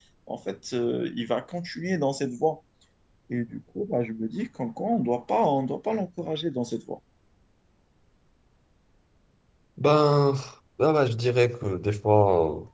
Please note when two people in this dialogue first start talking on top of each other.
none

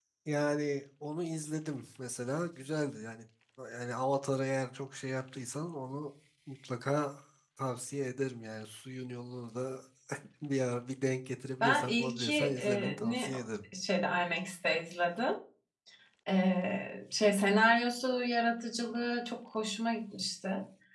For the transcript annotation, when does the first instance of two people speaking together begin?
11.6 s

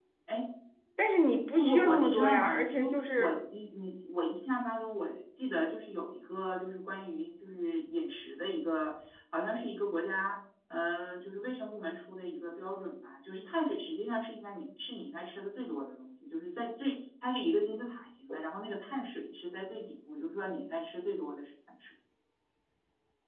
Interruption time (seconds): 1.6 s

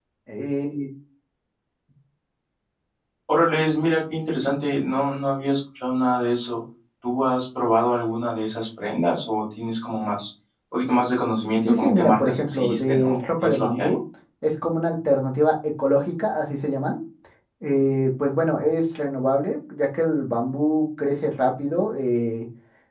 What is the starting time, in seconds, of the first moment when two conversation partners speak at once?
11.7 s

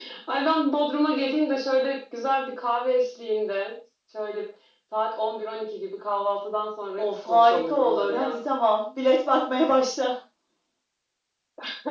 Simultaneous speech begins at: 7.0 s

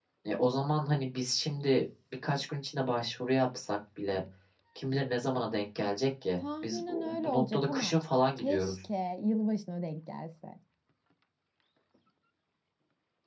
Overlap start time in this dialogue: 6.6 s

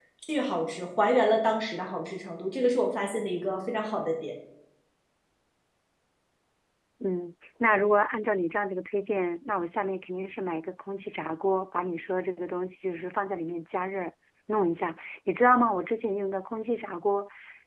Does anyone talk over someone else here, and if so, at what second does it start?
none

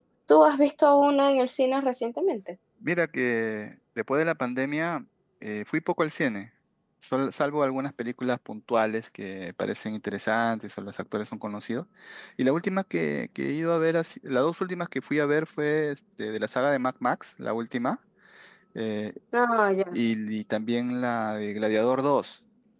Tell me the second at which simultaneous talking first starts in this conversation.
none

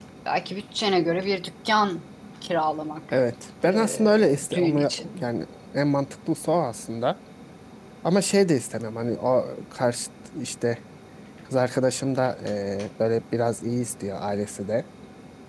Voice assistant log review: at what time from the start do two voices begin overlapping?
3.6 s

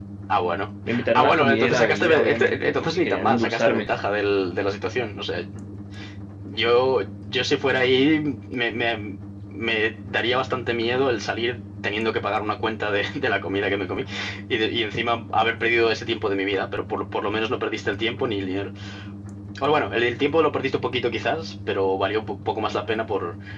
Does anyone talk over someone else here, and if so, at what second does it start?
0.9 s

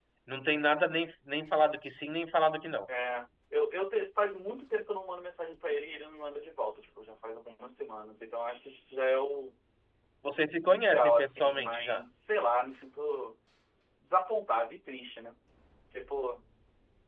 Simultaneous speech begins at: 10.6 s

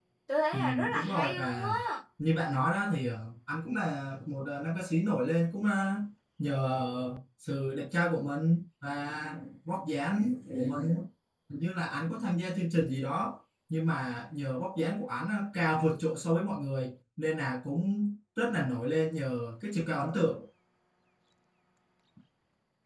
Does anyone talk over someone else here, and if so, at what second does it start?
0.5 s

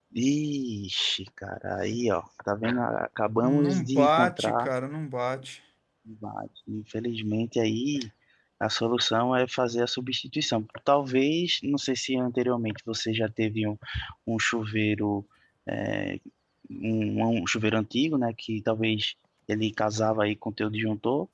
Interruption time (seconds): 3.4 s

